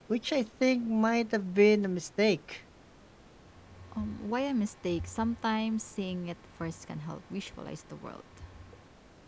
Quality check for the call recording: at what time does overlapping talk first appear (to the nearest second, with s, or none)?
none